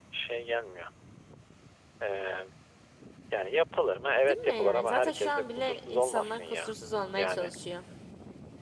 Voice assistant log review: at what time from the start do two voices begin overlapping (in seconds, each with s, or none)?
4.3 s